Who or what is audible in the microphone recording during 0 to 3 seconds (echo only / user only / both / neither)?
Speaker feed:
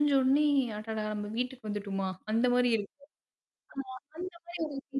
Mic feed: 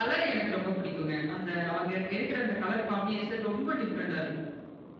user only